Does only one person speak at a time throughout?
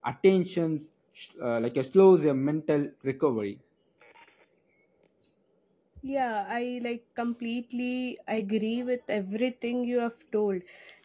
Yes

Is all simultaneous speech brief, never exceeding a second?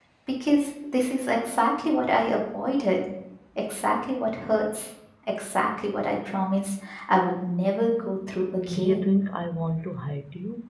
Yes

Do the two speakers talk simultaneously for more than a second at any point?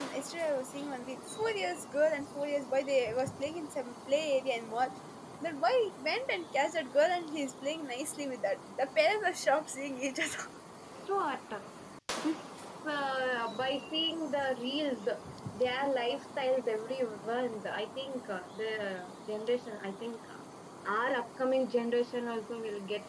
No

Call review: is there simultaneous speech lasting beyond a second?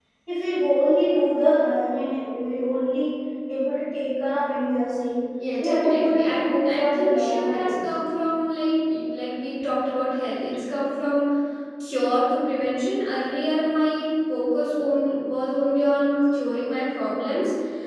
Yes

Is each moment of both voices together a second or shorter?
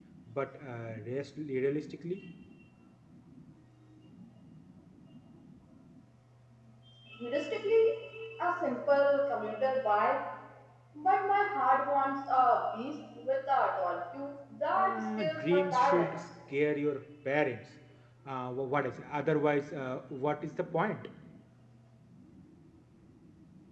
No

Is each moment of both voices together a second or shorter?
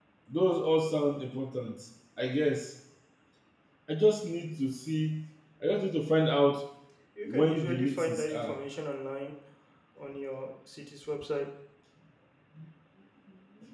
No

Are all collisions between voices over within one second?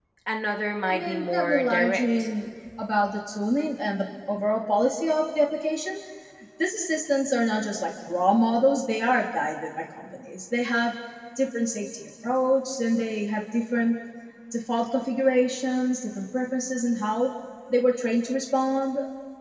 No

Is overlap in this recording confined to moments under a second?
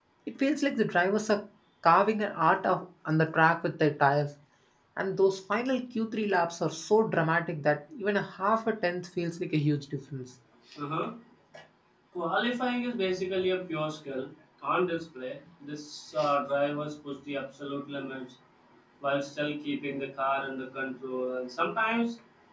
Yes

